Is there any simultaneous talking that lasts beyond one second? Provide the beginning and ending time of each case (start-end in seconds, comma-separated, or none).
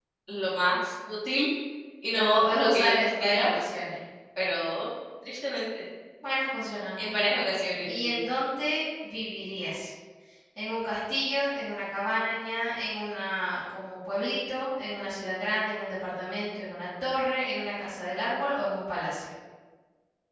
2.1-3.5